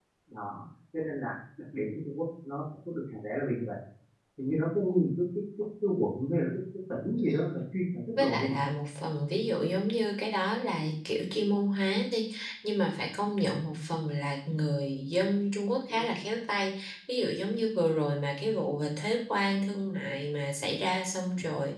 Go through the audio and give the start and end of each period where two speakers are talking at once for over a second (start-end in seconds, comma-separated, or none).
none